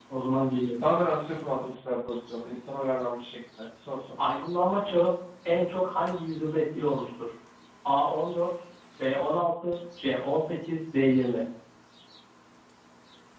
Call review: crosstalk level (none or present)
none